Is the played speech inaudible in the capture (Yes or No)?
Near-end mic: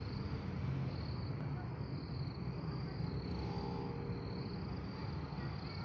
Yes